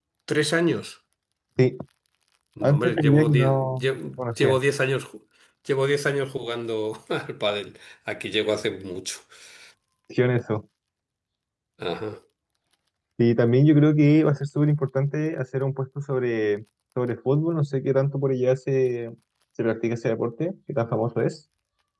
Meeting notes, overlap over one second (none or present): present